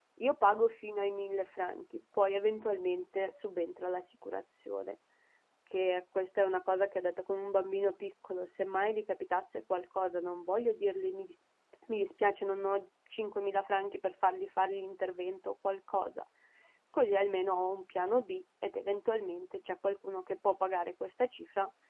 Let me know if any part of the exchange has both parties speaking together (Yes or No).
No